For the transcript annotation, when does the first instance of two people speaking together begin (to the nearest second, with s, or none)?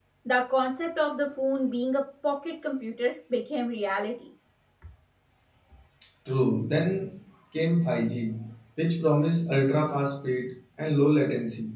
none